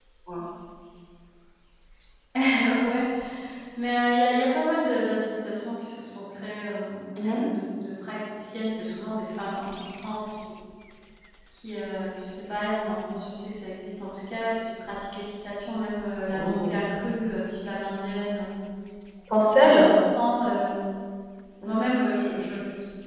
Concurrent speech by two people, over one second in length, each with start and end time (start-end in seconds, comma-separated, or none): none